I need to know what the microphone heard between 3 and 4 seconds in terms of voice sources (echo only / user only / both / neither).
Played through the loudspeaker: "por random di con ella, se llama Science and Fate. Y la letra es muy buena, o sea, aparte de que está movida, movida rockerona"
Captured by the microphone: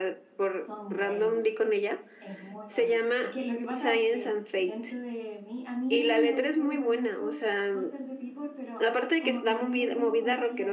both